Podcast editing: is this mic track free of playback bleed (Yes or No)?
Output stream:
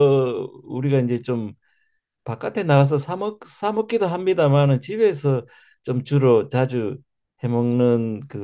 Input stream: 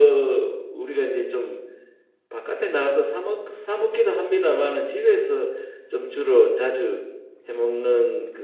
No